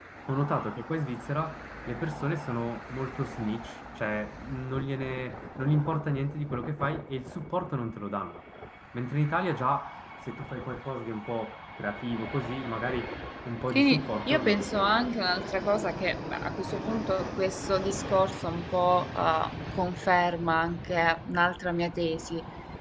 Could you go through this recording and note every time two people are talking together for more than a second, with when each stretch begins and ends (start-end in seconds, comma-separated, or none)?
13.8-15.0